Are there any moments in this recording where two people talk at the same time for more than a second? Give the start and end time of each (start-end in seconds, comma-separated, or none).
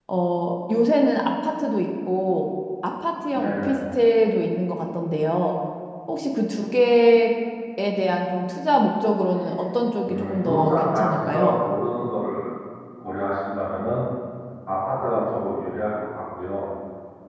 10.1-11.6